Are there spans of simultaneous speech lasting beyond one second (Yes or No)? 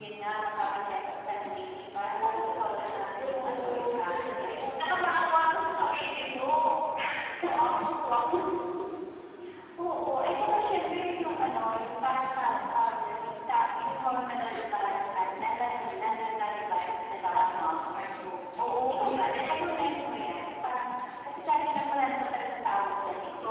Yes